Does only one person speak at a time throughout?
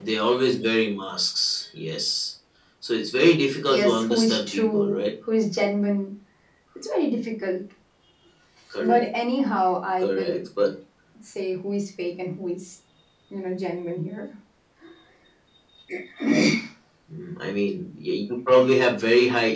No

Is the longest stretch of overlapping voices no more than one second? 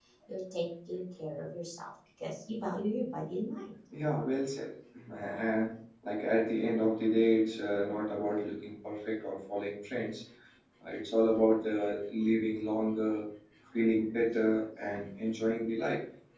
Yes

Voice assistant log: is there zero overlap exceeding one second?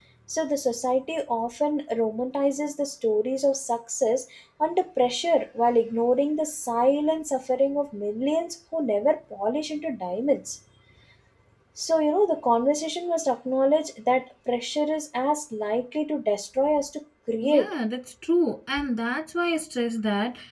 Yes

